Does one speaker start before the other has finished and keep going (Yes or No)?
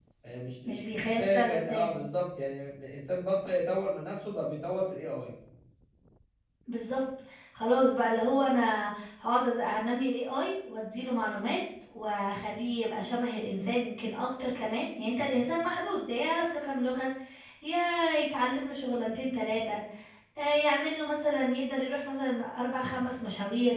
Yes